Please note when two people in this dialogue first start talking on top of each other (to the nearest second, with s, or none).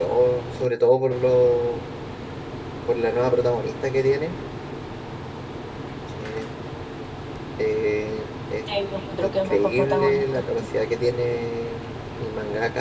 9 s